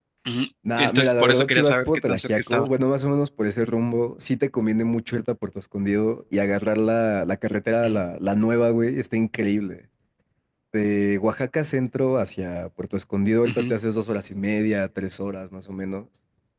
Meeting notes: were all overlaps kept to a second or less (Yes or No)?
No